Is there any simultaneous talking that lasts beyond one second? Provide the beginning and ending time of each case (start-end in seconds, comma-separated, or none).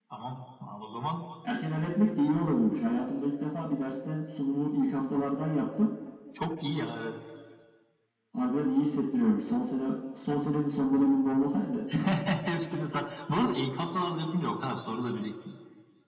none